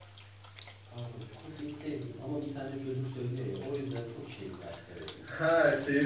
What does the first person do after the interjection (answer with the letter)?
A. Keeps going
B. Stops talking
B